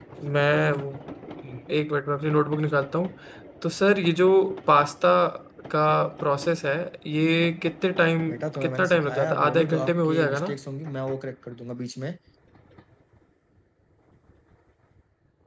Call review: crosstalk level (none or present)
present